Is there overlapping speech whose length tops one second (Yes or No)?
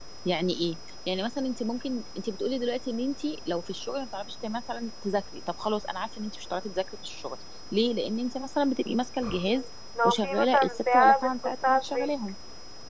Yes